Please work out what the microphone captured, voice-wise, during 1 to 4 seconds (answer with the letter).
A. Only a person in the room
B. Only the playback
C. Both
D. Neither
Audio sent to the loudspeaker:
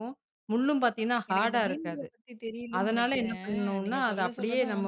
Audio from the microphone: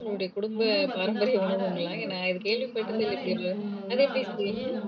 C